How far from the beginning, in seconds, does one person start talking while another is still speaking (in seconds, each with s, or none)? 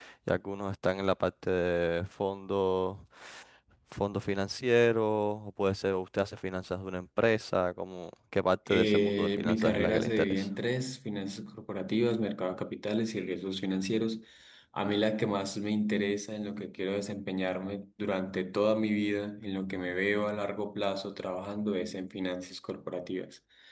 8.7 s